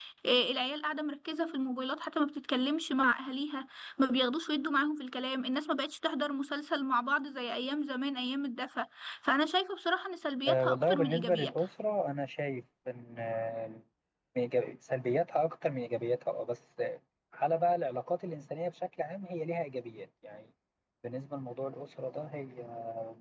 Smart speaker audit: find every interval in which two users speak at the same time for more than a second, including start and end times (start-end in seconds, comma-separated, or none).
10.5-11.7